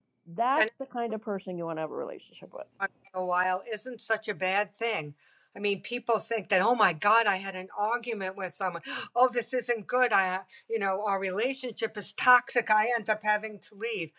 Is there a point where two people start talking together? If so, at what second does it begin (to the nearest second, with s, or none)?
none